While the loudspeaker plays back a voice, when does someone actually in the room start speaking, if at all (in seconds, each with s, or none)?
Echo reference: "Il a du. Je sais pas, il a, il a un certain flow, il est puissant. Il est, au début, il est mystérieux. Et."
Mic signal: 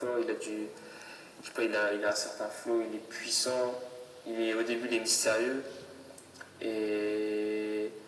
none